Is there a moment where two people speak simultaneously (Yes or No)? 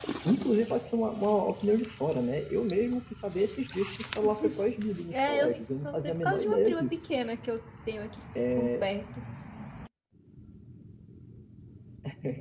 Yes